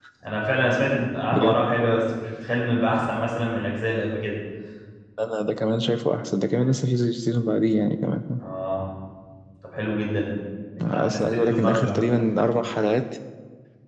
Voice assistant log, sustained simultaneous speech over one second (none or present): present